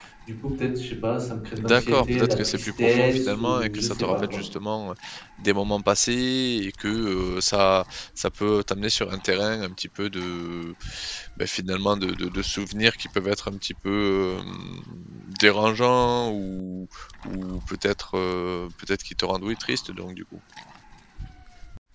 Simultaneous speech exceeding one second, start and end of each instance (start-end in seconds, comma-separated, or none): 1.6-4.4